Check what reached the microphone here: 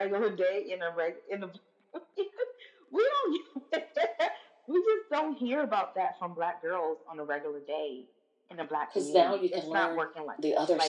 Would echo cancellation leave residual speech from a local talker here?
Yes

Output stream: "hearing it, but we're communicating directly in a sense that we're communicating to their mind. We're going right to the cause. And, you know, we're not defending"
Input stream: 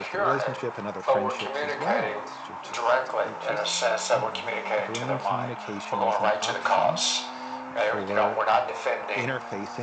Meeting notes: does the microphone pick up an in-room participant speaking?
Yes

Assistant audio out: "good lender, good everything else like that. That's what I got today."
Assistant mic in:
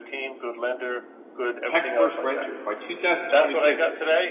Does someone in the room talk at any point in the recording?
Yes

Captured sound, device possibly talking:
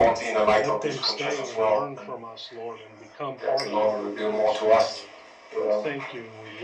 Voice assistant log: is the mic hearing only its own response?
No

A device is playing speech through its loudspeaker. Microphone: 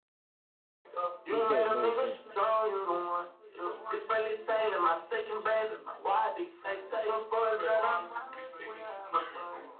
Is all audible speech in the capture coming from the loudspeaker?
No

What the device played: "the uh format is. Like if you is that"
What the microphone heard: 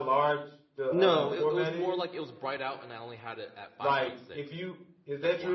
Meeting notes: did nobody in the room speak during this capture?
No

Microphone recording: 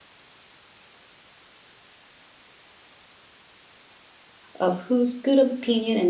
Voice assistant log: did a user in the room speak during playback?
Yes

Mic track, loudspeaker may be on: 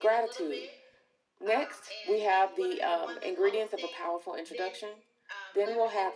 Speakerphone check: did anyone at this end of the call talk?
Yes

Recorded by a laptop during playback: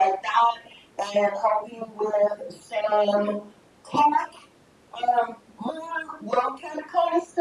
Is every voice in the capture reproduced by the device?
Yes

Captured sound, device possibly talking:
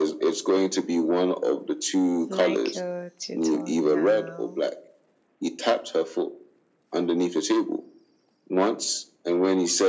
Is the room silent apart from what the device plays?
No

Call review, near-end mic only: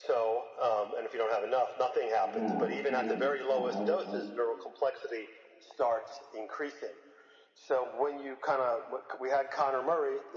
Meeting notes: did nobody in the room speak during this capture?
No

